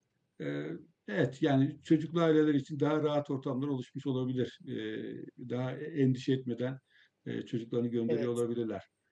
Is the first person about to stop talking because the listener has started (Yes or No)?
No